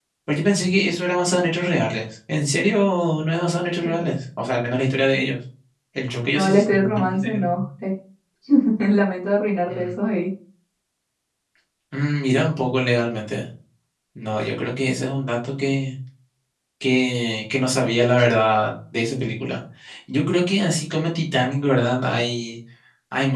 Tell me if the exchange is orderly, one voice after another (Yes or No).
No